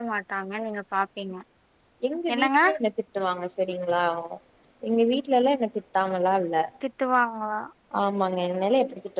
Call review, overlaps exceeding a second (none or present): none